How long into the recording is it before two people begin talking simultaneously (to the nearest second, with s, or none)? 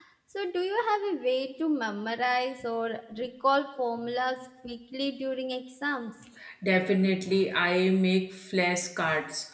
none